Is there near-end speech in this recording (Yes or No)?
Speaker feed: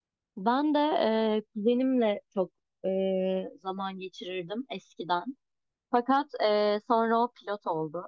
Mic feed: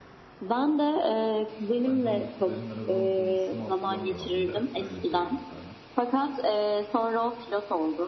Yes